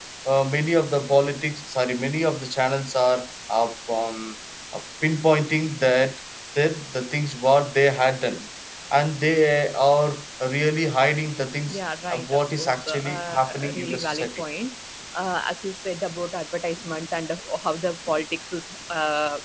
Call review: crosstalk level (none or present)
present